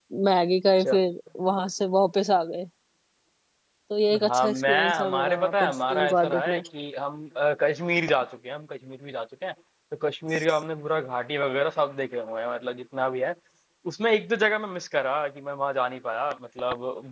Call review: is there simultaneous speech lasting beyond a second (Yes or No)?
Yes